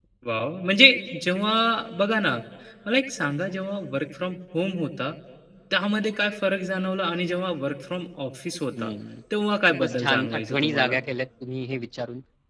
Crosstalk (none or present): present